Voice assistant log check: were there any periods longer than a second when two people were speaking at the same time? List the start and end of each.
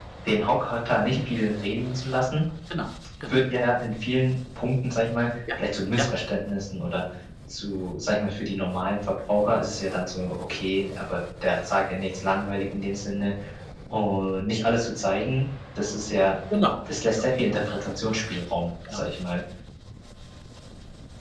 none

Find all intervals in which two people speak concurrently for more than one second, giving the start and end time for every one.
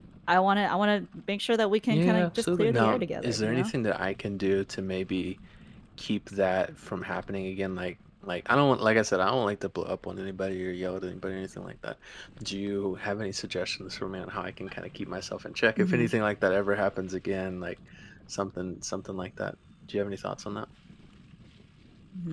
1.9-3.7

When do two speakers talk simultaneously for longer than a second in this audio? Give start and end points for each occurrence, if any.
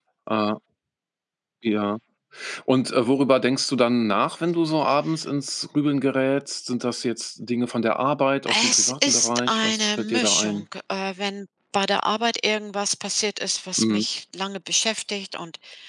8.7-10.6

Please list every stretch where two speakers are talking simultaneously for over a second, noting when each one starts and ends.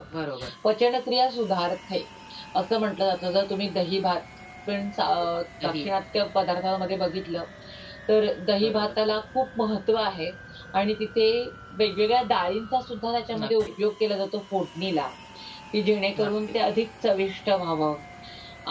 none

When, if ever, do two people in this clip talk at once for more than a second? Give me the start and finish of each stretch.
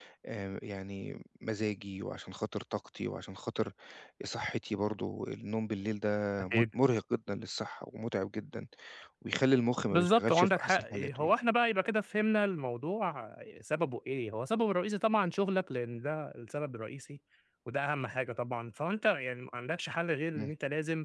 9.9-11.3

